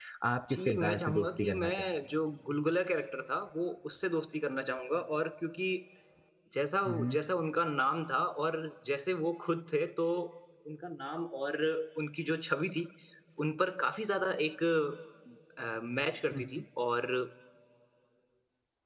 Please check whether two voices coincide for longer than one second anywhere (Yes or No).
Yes